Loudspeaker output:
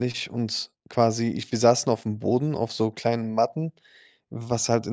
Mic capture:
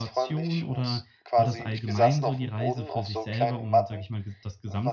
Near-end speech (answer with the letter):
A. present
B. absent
A